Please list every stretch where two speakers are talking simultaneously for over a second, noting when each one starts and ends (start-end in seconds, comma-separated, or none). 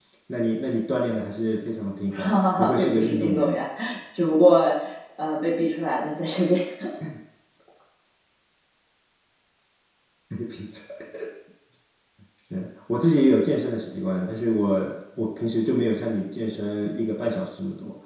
2.1-3.6